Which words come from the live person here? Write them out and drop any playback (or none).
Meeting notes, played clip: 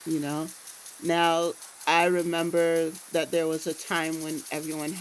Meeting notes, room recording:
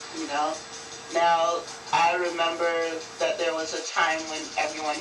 none